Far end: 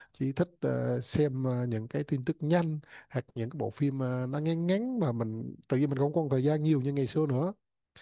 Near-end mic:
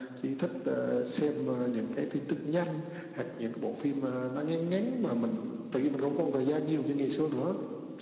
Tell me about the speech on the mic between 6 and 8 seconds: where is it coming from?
echo only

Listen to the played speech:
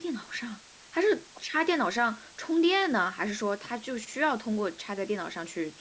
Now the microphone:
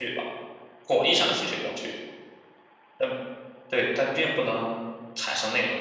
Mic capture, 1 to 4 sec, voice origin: user only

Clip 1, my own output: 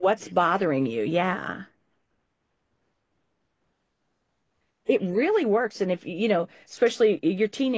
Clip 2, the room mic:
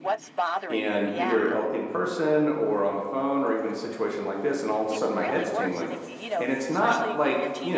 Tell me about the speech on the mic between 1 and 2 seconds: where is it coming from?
both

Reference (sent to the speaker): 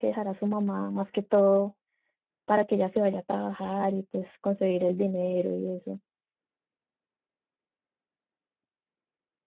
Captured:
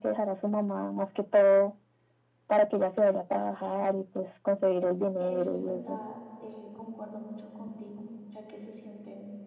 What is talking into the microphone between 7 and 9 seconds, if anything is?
user only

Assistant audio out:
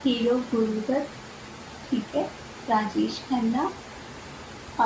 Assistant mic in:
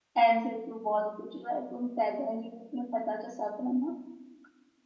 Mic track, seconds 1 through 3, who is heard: user only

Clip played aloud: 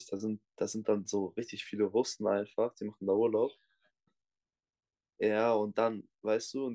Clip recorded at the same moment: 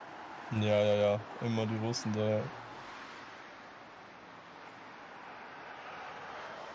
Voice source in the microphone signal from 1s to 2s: user only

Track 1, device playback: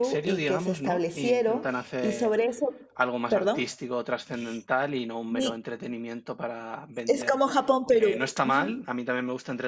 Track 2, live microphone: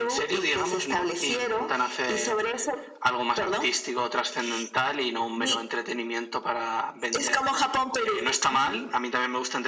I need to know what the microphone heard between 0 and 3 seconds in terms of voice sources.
echo only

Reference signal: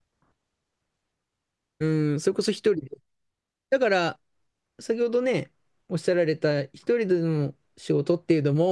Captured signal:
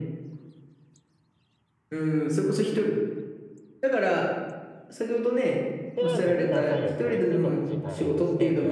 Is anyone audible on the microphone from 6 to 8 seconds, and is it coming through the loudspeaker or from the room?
both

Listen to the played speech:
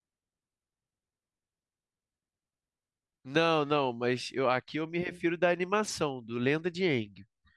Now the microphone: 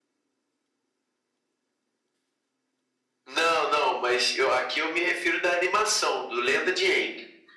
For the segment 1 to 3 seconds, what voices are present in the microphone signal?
neither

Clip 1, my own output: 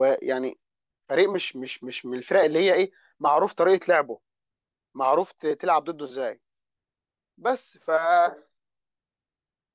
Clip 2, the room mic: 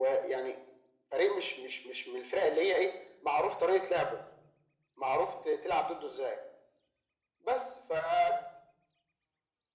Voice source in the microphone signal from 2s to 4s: echo only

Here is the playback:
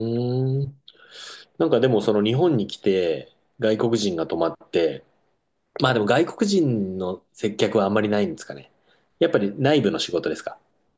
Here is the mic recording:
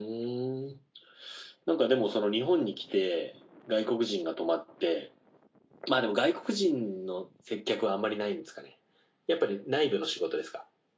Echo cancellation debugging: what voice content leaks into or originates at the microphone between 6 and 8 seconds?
echo only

